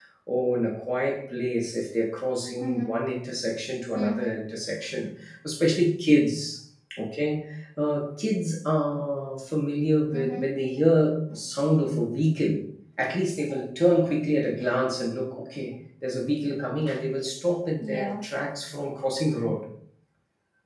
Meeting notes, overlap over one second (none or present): none